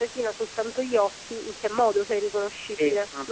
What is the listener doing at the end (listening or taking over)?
taking over